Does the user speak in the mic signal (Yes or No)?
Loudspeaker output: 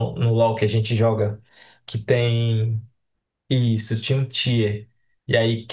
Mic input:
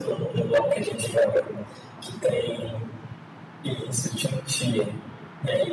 No